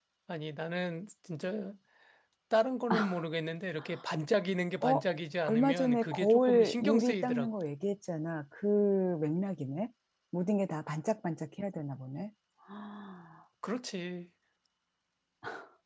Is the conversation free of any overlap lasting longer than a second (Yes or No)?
No